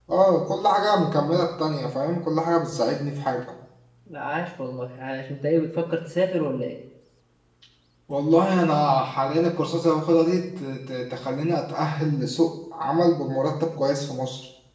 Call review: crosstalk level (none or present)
none